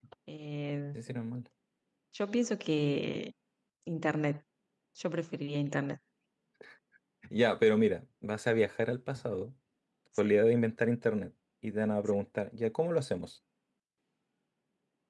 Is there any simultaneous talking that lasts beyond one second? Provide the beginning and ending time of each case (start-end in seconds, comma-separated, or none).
none